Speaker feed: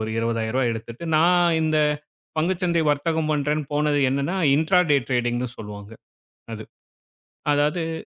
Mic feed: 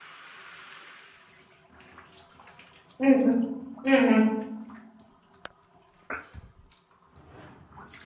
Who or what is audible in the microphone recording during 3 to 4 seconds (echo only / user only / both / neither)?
user only